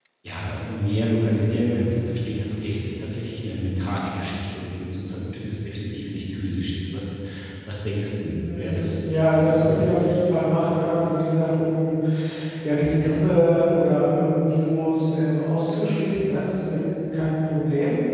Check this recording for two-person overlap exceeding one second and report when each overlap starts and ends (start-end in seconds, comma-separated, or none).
8.4-10.2